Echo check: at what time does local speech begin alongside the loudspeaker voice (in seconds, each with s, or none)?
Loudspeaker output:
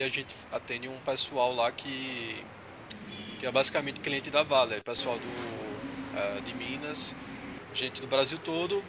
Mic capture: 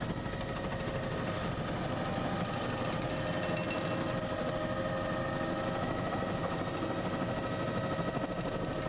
none